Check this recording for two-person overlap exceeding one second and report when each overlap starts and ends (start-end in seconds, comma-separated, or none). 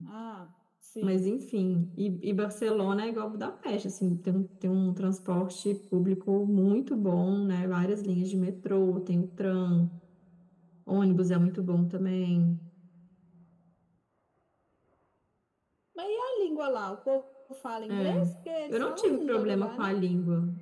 18.7-19.9